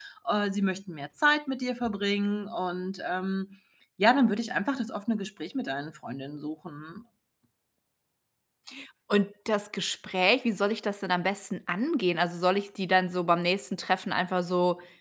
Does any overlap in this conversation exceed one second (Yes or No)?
No